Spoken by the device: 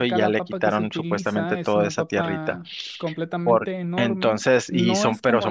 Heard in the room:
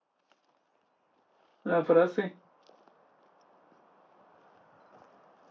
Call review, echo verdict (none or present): none